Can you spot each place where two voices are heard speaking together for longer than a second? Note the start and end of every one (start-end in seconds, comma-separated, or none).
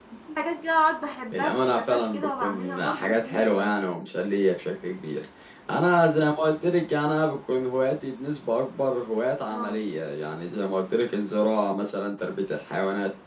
1.3-3.9